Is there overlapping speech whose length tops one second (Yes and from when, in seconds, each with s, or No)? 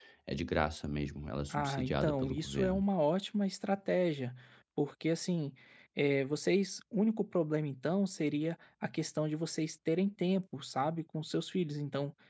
Yes, from 1.5 s